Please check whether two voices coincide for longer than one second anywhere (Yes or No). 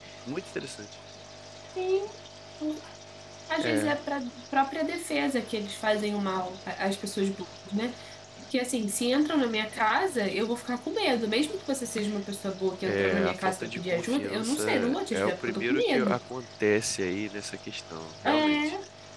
Yes